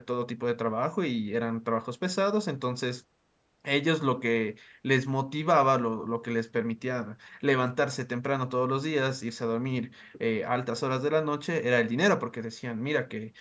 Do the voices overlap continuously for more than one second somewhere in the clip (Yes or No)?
No